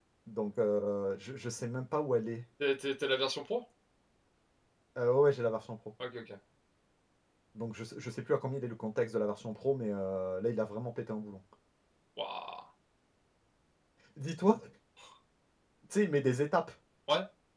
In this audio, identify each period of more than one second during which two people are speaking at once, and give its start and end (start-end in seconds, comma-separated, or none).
none